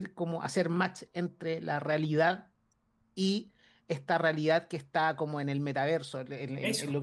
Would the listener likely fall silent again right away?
Yes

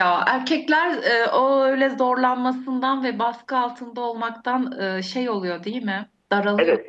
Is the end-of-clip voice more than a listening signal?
Yes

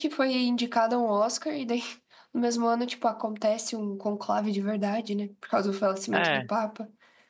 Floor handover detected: No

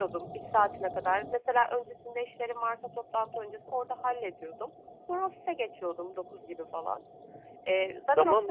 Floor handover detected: Yes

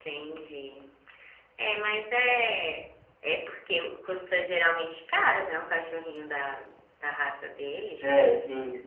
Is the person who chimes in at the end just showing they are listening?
No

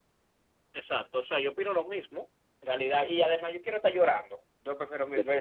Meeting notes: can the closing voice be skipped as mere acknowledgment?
Yes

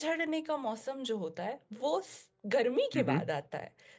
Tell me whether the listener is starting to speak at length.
No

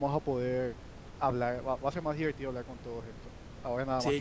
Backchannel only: No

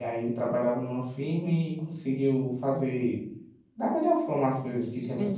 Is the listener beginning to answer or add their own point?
Yes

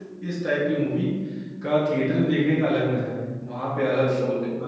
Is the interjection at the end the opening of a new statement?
No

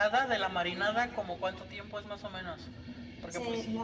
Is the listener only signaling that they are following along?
No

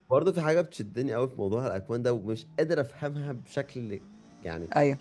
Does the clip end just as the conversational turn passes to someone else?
No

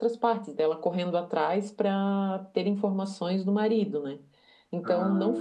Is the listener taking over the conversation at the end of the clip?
No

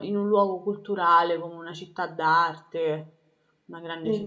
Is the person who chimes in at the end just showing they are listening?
No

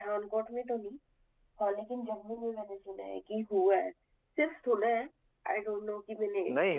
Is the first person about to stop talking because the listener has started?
Yes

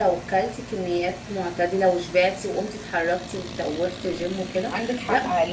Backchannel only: No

